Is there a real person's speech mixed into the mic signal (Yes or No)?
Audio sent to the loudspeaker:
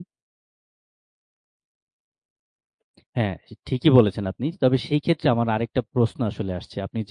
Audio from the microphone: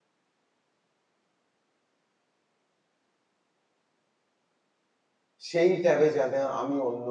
Yes